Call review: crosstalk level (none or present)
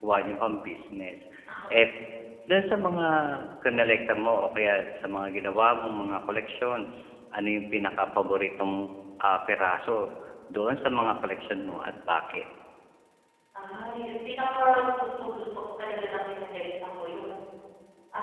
none